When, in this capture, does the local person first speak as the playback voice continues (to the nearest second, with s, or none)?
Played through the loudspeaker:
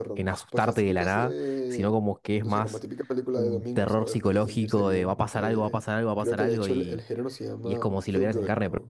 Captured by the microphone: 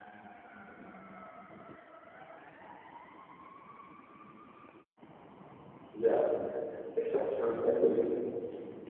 6 s